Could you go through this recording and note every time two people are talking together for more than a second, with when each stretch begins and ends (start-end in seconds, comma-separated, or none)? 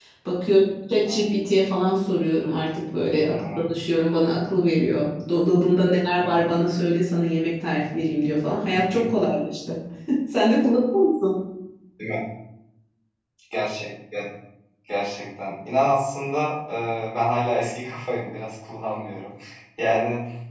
none